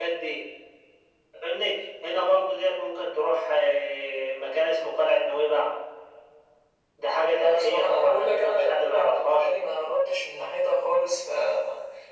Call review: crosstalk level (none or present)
present